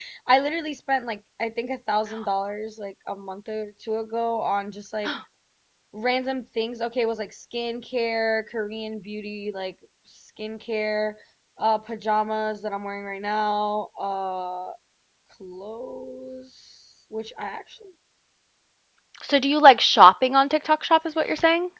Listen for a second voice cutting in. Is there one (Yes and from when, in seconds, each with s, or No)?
No